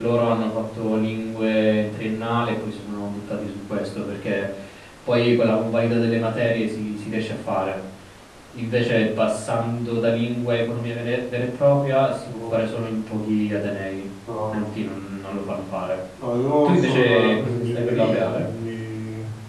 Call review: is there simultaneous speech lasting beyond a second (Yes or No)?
Yes